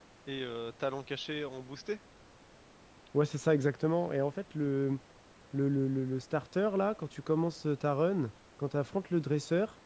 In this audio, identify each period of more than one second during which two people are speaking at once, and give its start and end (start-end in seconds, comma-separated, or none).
none